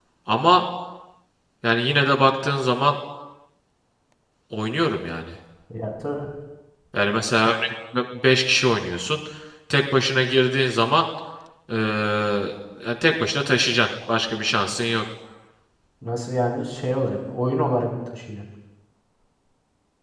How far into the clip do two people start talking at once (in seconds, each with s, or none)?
none